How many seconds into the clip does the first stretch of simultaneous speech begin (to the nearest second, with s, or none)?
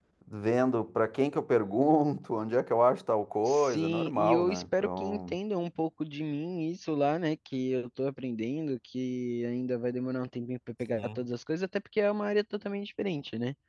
3 s